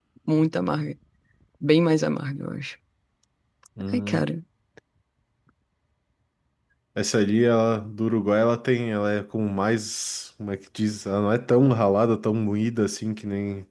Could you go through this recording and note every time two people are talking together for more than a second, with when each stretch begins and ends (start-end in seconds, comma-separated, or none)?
none